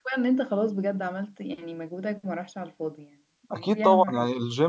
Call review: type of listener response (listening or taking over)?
taking over